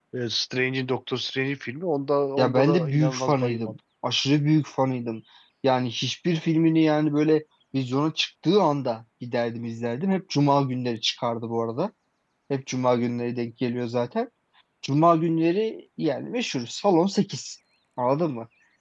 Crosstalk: present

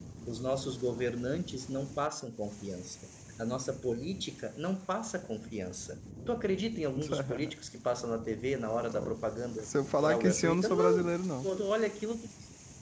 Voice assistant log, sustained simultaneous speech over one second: present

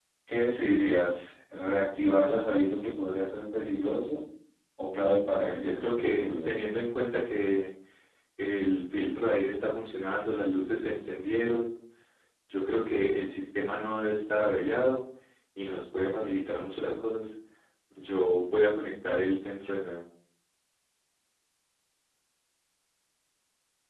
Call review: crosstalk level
present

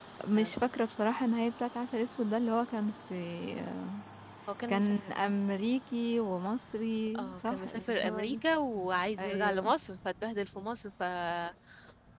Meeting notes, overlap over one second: present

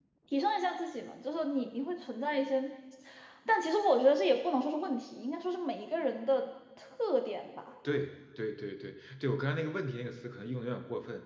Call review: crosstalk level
none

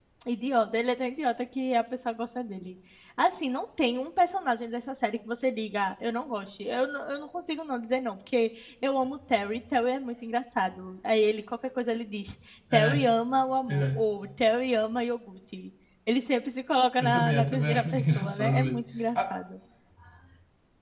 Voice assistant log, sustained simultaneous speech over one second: present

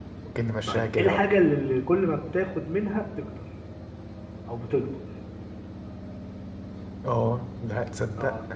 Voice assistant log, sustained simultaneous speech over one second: none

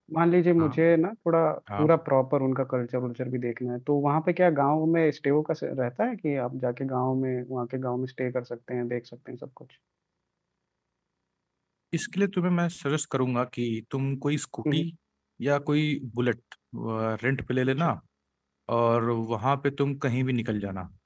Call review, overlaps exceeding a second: none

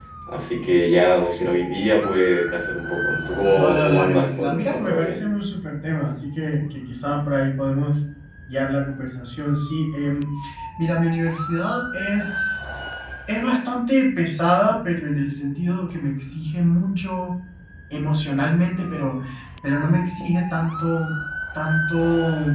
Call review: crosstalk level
present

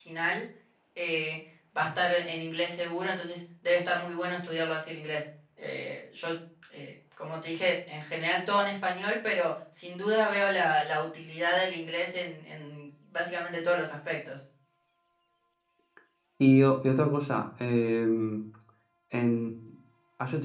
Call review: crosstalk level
none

